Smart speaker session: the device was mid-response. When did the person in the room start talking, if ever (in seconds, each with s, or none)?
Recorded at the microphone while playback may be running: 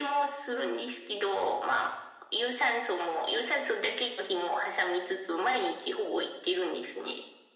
none